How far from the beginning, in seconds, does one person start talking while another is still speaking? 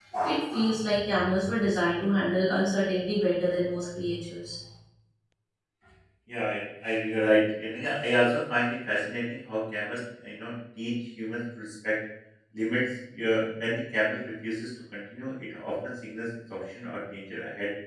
none

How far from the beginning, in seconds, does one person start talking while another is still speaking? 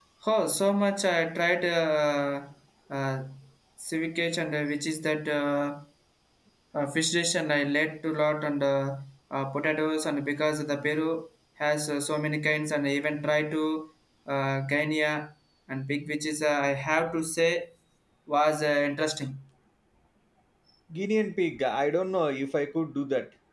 none

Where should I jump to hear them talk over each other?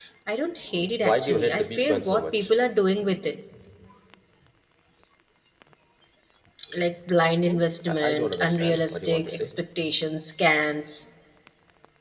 0.7 s

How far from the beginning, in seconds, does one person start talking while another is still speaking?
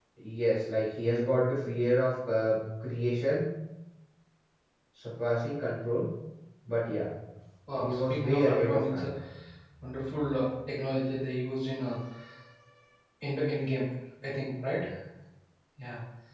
7.8 s

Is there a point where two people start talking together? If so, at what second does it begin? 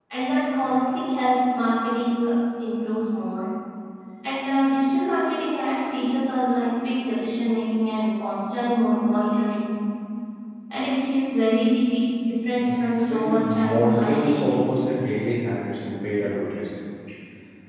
12.6 s

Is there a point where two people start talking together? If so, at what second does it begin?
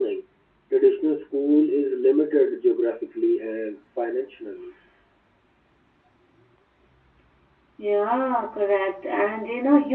none

